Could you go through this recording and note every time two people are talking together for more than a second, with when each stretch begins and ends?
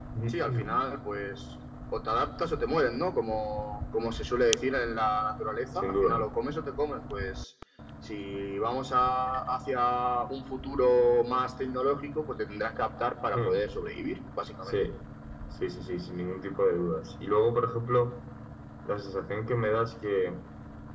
none

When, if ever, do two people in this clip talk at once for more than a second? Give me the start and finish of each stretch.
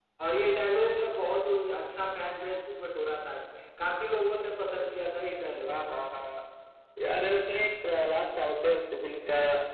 none

